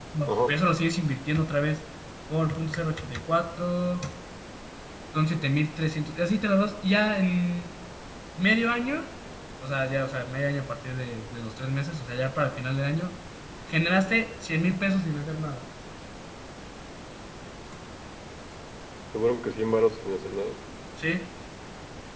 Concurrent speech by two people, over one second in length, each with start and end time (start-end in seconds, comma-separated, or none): none